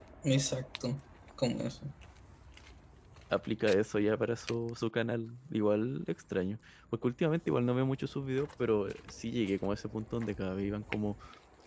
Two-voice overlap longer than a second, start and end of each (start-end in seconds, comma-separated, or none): none